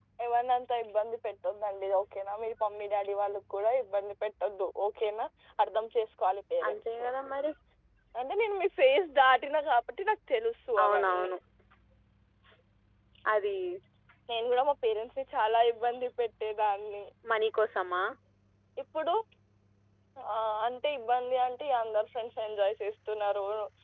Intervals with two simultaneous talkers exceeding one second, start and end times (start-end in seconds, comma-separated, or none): none